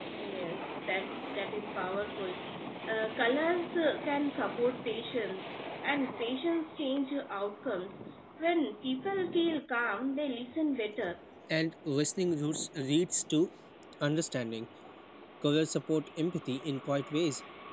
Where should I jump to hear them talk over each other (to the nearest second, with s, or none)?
none